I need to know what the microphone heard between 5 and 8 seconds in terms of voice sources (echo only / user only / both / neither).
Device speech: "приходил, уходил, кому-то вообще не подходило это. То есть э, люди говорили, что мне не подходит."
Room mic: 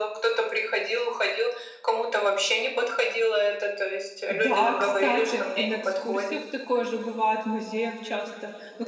both